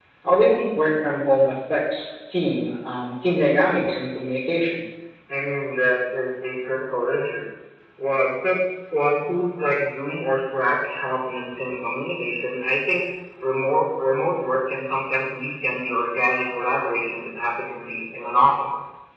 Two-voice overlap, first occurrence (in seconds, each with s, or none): none